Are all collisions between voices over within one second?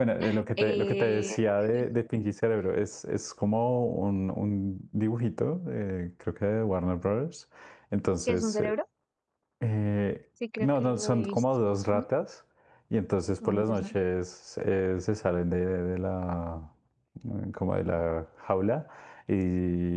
No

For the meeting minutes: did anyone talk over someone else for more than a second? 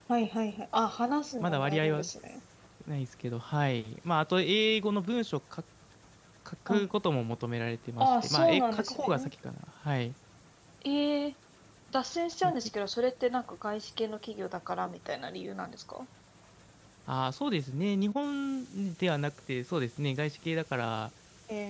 Yes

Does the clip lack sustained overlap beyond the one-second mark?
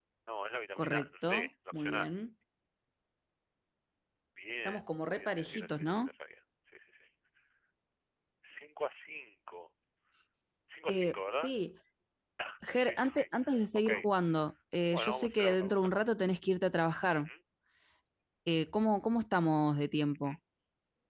No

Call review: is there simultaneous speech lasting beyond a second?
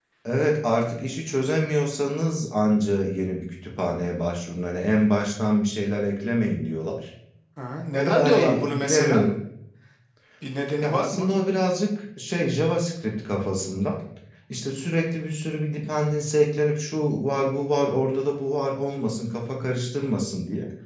Yes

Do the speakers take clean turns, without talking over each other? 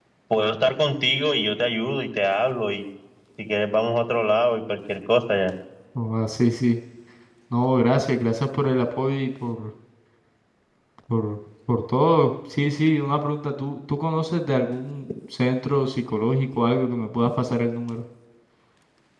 Yes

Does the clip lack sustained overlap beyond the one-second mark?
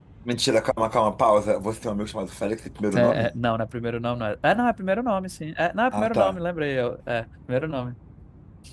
Yes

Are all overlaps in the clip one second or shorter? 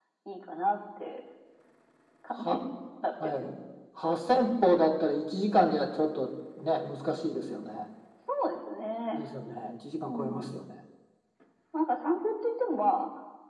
Yes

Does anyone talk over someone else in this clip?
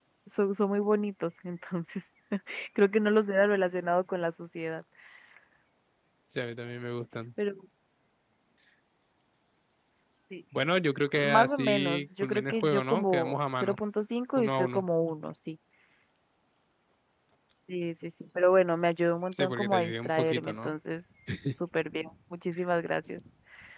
Yes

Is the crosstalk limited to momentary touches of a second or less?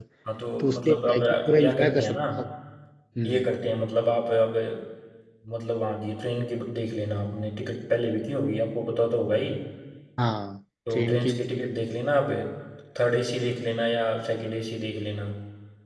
No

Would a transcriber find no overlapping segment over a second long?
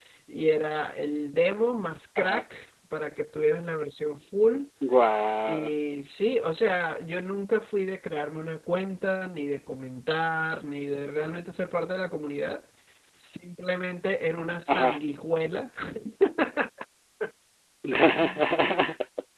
Yes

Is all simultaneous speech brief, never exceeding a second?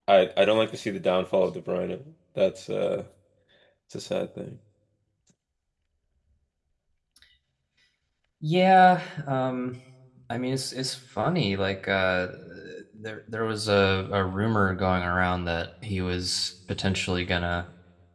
Yes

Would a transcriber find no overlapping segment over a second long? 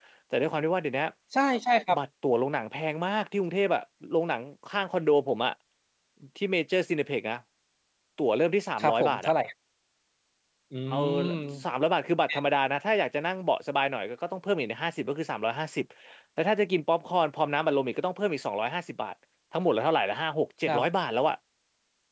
Yes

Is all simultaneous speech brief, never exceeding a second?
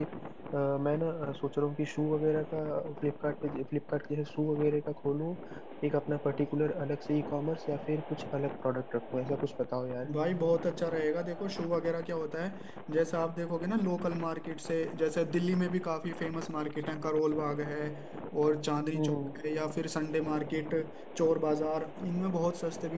Yes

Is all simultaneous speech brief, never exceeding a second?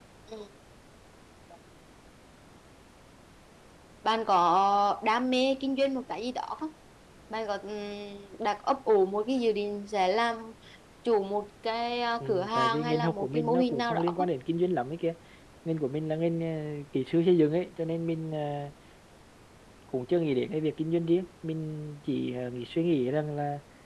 No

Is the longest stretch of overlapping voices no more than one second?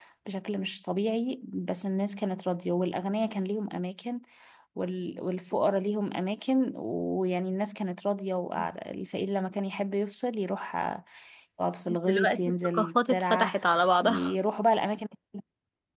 No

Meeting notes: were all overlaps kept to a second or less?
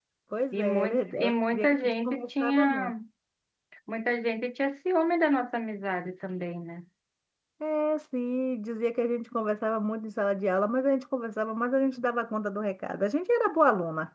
No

